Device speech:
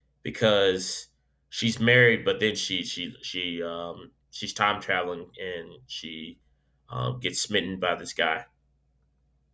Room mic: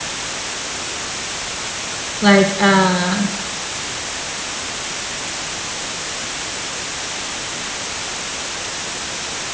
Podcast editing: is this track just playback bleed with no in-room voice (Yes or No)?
No